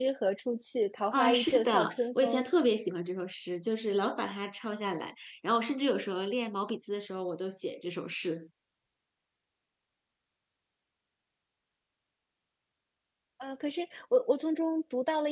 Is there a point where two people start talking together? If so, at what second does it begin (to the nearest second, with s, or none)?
1 s